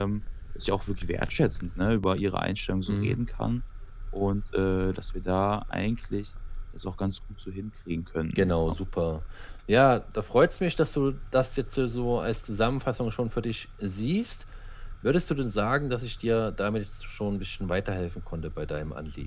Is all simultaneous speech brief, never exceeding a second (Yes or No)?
Yes